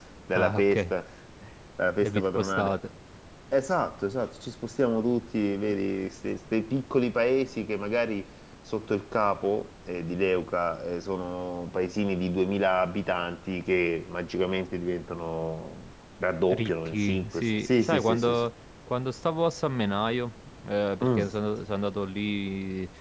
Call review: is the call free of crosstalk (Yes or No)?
No